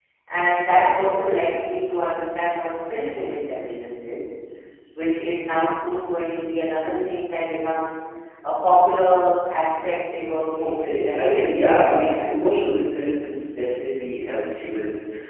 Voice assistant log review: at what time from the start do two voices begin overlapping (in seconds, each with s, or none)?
10.6 s